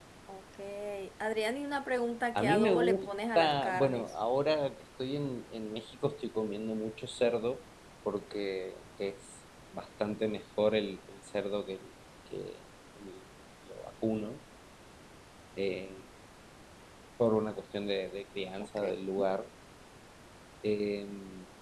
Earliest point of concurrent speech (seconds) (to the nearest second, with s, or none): 2 s